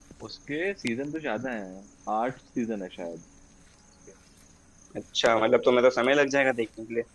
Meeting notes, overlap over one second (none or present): none